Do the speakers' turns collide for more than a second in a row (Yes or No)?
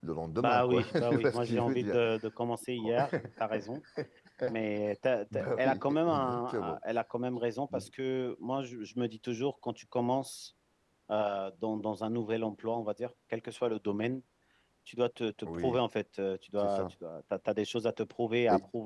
Yes